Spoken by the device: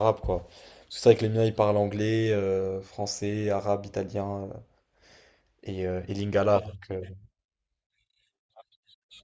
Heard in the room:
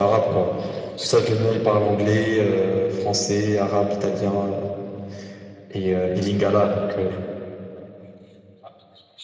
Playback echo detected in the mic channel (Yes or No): Yes